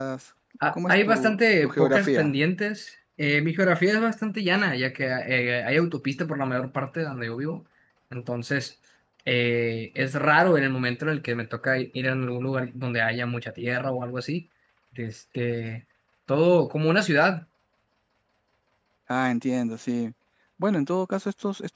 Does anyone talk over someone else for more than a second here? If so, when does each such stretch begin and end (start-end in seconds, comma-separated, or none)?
0.7-2.3